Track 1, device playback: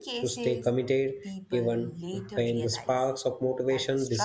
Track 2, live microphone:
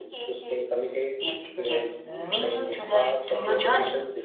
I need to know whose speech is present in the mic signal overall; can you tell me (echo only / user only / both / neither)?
both